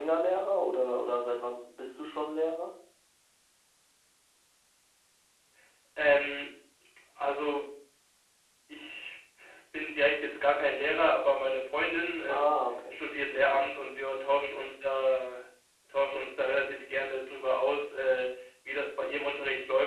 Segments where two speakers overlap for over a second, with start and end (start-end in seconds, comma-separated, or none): none